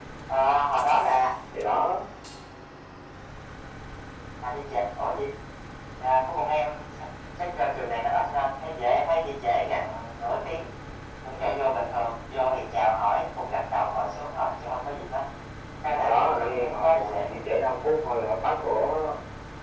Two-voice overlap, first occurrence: 16 s

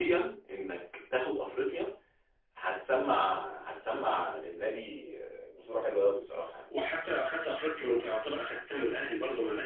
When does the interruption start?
none

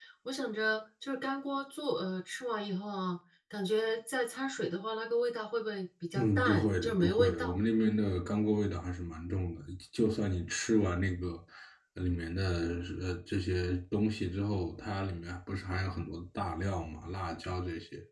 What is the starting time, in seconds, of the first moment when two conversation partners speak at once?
6 s

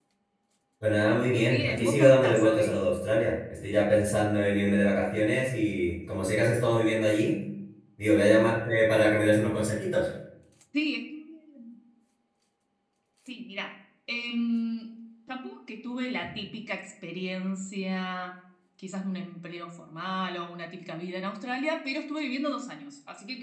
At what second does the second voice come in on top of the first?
1 s

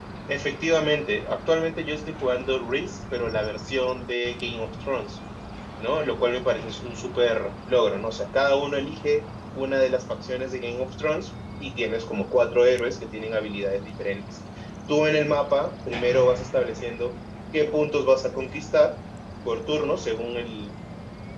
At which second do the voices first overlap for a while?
none

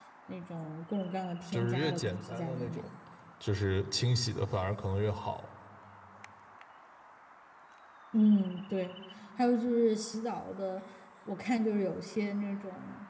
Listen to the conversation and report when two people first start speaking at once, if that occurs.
1 s

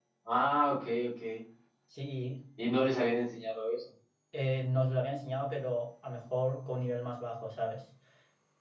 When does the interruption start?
none

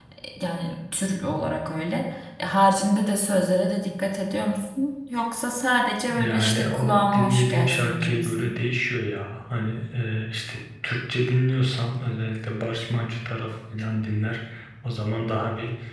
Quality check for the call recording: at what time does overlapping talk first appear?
6 s

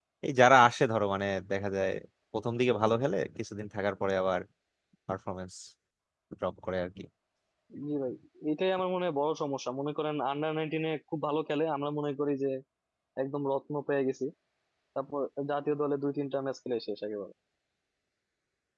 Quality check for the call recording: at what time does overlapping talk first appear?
none

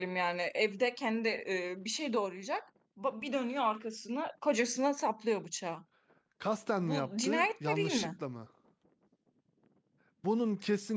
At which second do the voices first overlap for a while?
7 s

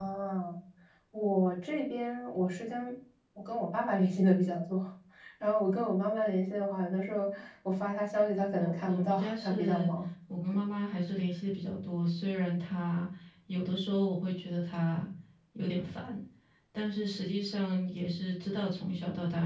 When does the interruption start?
9 s

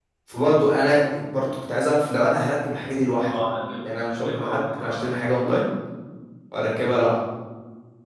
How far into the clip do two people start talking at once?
4 s

